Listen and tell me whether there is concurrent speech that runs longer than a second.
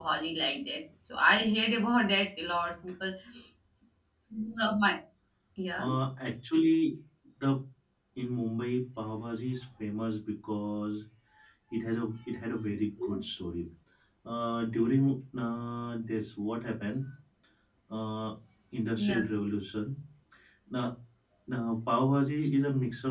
No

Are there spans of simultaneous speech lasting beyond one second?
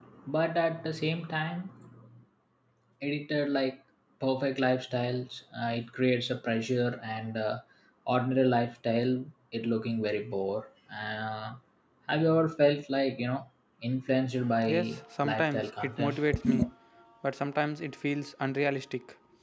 Yes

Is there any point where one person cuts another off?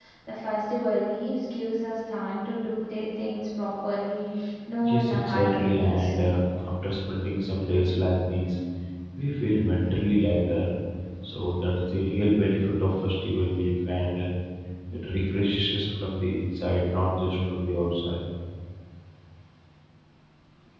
Yes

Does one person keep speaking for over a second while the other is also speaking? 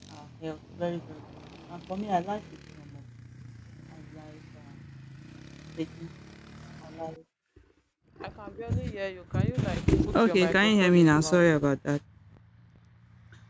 Yes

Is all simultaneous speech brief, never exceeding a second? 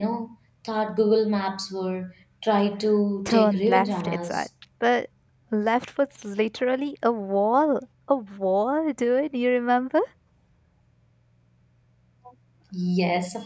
No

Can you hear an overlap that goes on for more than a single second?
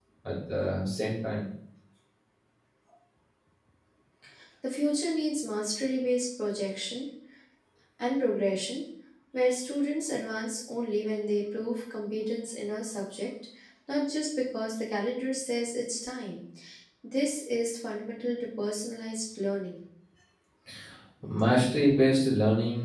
No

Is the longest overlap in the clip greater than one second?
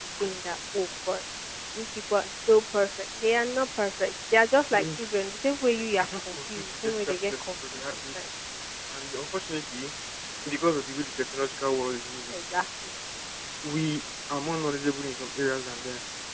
Yes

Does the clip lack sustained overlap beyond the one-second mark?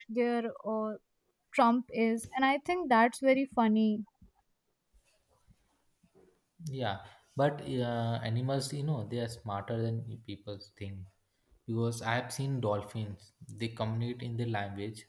Yes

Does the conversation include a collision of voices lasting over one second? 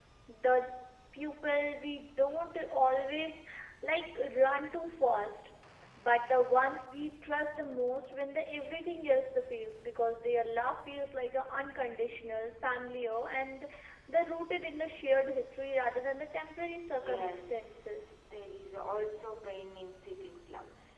Yes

